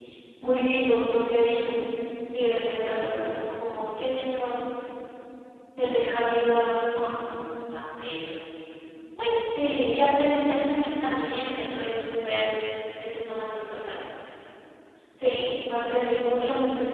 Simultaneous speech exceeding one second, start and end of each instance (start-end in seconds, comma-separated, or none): none